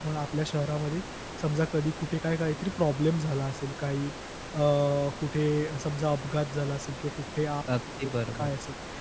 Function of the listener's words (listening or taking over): listening